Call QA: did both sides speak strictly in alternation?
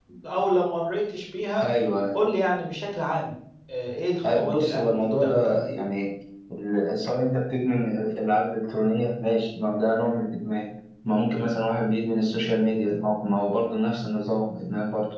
No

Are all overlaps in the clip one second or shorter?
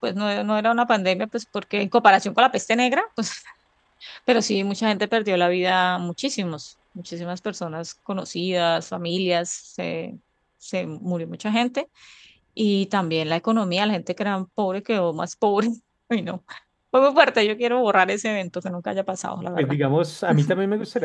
Yes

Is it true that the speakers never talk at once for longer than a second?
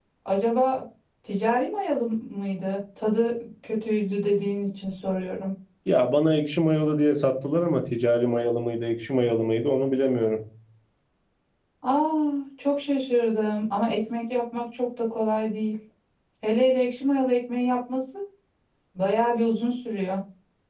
Yes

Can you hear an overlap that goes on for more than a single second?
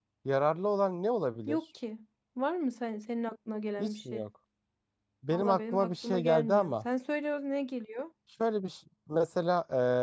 Yes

